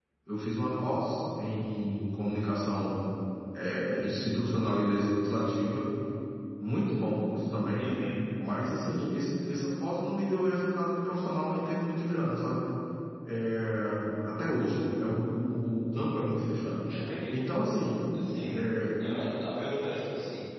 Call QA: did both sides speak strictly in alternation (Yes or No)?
Yes